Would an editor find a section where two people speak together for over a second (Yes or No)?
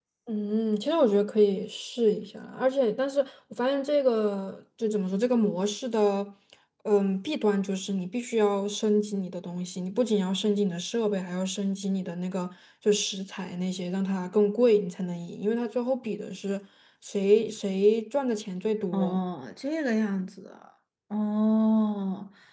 No